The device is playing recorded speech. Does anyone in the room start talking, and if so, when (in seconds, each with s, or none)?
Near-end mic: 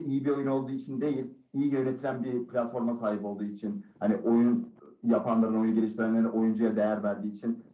none